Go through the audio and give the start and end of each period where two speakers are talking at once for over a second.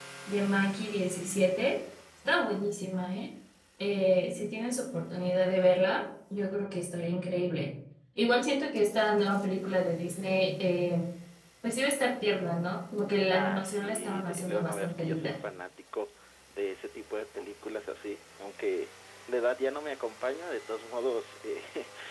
13.3-15.4

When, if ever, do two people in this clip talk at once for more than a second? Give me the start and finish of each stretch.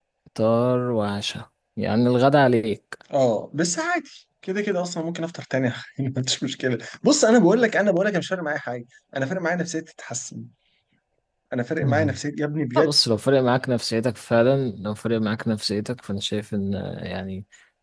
none

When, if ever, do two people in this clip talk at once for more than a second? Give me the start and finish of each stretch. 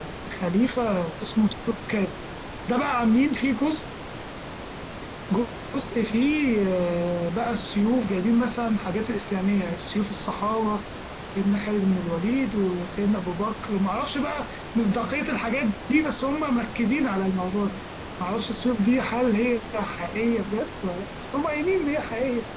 none

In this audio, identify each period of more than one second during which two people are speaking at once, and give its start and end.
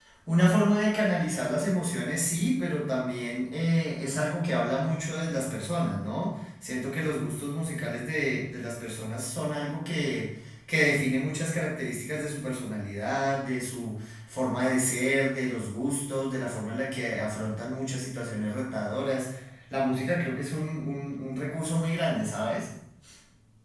none

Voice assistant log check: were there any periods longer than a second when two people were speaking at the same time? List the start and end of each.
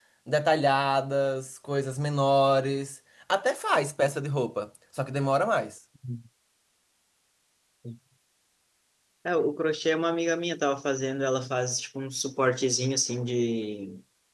none

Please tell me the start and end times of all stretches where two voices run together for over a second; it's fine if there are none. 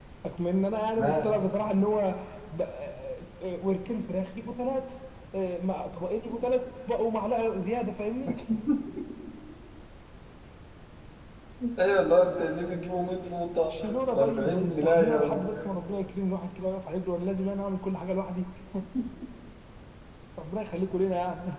14.2-15.4

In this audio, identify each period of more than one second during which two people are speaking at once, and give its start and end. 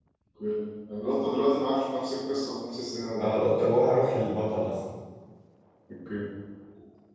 none

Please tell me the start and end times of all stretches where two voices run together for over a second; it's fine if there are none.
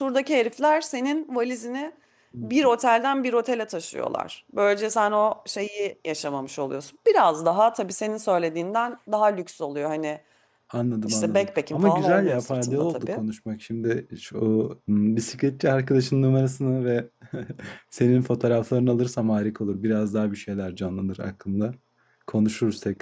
11.0-13.2

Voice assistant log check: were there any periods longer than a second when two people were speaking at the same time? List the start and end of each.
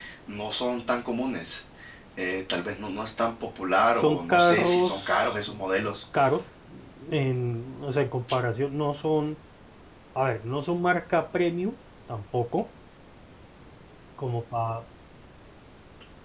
4.0-5.3

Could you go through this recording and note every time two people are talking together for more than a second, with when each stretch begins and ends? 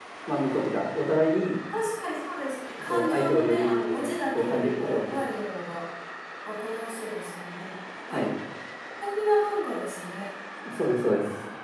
2.9-5.2

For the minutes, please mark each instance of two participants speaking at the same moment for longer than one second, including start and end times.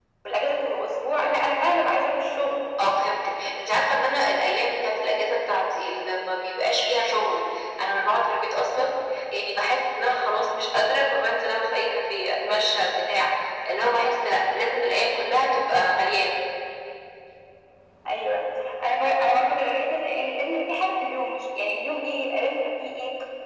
none

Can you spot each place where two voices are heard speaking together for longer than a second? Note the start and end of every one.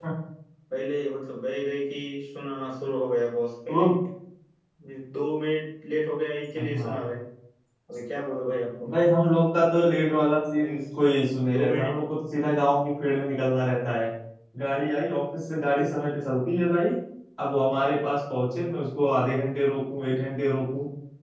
none

